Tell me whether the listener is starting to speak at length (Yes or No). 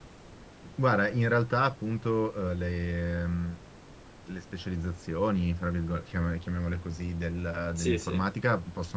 No